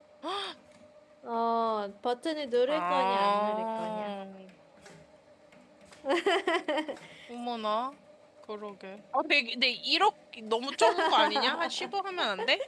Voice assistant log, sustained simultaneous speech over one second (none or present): present